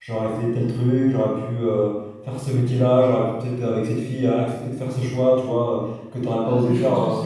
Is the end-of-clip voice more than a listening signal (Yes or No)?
Yes